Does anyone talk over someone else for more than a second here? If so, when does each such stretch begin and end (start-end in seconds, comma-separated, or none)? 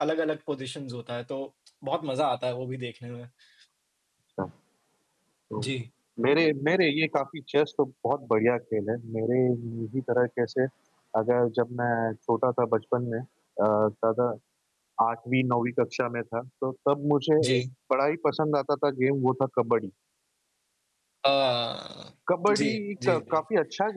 none